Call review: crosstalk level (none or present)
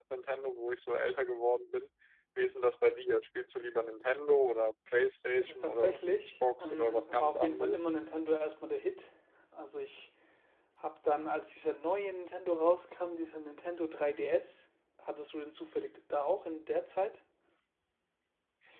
present